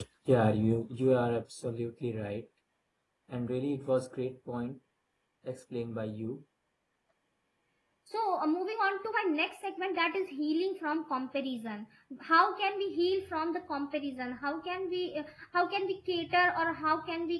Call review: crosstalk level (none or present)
none